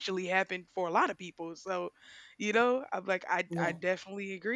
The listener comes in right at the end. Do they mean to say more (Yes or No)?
No